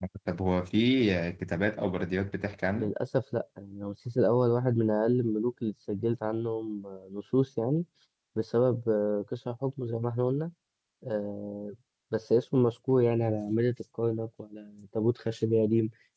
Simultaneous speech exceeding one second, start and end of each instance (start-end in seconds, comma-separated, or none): none